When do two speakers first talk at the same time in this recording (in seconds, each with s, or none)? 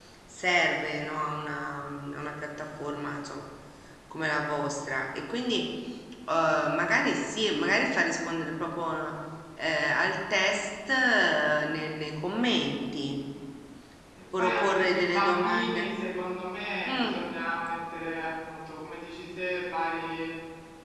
14.4 s